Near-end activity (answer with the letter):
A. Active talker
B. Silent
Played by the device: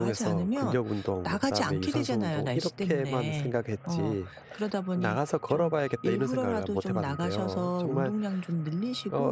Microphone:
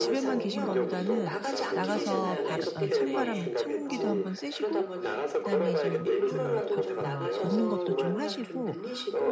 A